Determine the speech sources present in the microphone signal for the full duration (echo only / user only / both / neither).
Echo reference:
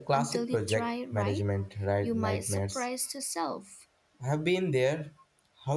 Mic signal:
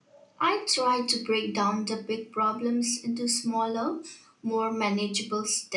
user only